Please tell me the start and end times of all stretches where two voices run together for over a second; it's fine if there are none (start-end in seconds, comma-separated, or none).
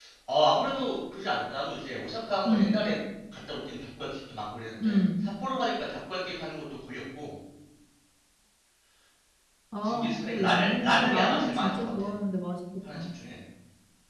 9.8-12.1